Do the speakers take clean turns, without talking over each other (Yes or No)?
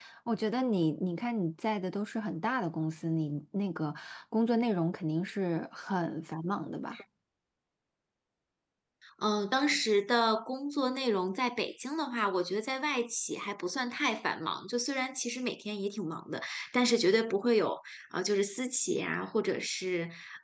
Yes